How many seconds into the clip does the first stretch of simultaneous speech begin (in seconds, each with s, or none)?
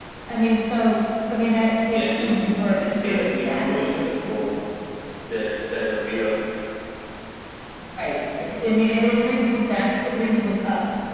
1.9 s